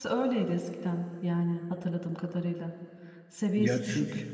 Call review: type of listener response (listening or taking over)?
listening